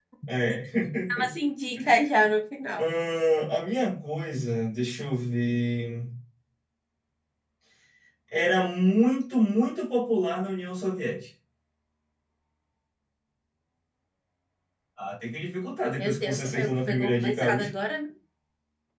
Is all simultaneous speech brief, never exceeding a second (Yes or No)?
No